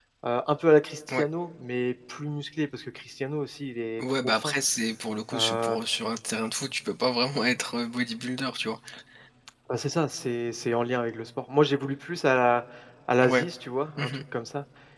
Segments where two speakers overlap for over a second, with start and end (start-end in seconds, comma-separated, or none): none